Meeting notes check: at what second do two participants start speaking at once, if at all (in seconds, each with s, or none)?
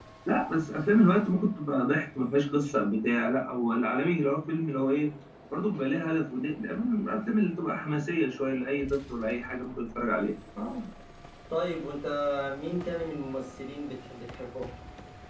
none